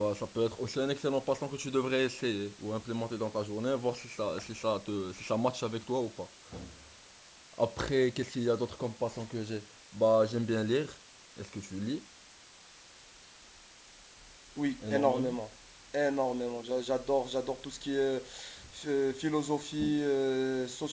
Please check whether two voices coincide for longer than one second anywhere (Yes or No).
No